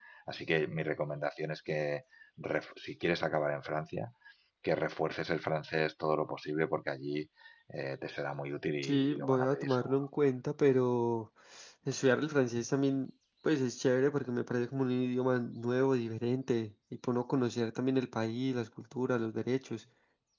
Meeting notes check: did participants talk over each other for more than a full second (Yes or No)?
Yes